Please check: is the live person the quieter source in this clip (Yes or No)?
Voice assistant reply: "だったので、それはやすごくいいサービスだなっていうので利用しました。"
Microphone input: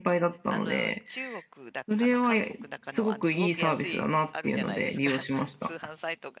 Yes